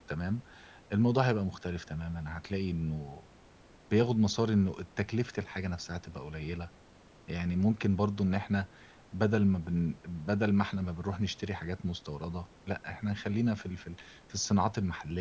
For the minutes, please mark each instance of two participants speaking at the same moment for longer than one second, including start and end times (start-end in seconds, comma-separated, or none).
none